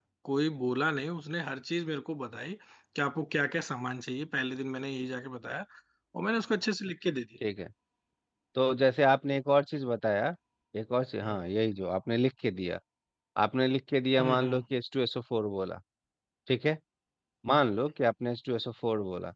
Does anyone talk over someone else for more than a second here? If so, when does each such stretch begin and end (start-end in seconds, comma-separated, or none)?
none